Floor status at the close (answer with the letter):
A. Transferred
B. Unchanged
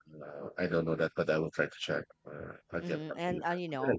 A